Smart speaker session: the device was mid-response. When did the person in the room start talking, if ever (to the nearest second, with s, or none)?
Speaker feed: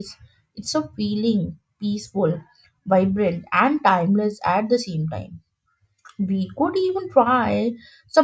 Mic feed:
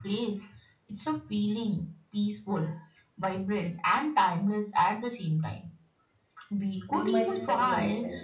7 s